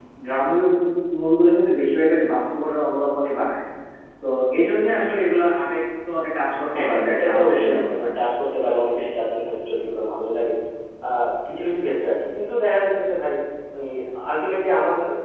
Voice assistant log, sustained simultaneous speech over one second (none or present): present